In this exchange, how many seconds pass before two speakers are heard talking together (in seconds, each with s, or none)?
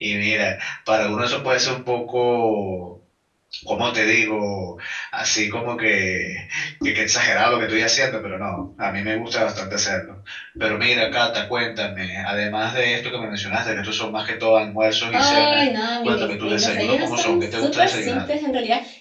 15.1 s